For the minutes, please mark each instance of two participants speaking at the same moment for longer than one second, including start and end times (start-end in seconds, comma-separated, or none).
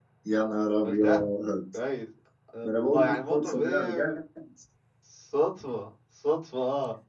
2.6-4.2